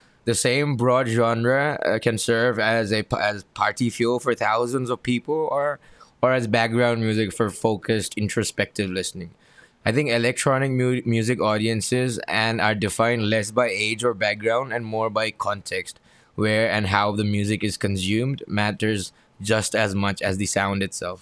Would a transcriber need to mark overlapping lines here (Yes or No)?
No